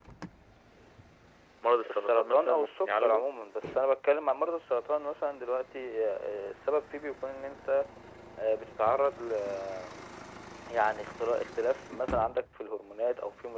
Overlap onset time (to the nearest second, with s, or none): 2 s